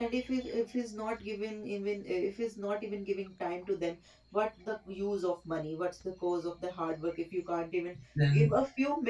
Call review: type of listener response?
listening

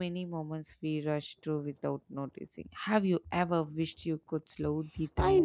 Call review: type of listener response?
taking over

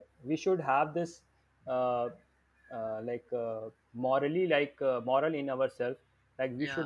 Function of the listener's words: listening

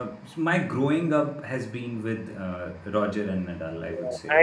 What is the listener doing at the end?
taking over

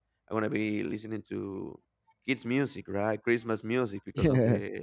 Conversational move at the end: listening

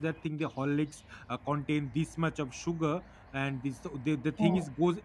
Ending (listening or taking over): listening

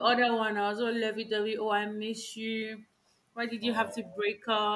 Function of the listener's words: listening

